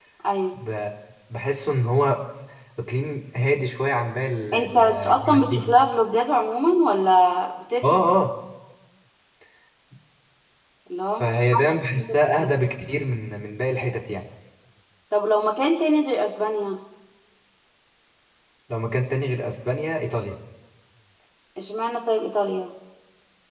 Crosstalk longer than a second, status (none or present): present